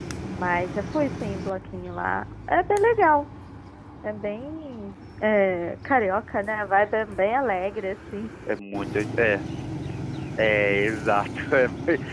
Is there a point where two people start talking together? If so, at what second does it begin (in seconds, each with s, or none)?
none